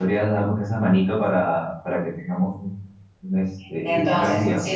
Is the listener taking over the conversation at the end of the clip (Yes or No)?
Yes